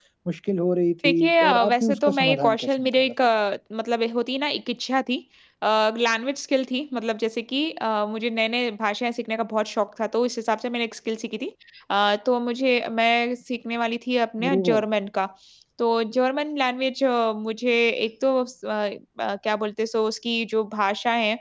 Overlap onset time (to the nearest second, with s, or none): 1 s